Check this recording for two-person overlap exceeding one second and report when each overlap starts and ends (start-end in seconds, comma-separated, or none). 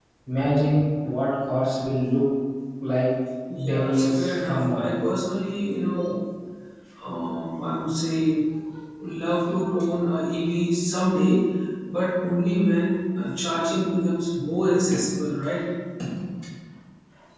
3.7-4.9